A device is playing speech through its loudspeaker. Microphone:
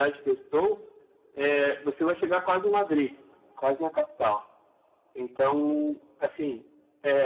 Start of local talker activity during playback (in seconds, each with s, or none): none